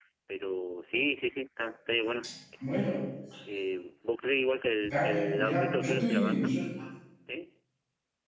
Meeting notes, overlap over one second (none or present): present